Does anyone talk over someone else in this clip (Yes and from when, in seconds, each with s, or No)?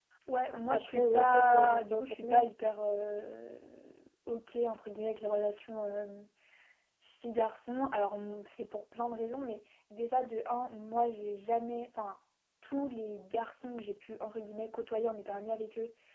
Yes, from 0.7 s